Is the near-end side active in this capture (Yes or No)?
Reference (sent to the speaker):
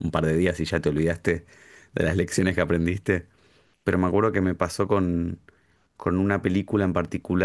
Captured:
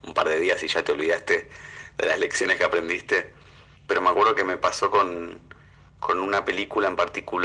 No